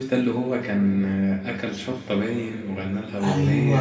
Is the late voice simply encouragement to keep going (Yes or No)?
Yes